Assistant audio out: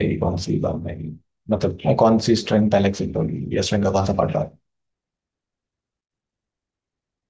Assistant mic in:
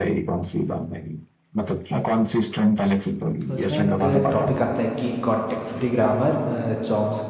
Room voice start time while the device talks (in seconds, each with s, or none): 3.5 s